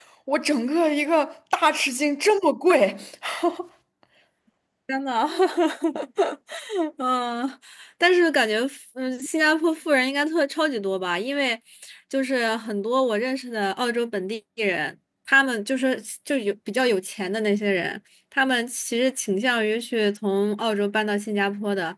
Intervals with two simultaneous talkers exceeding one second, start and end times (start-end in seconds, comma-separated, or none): none